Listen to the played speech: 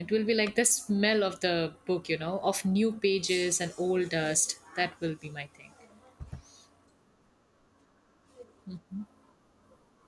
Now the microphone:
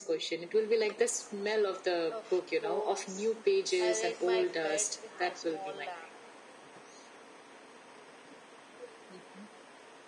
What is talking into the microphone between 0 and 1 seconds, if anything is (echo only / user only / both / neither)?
echo only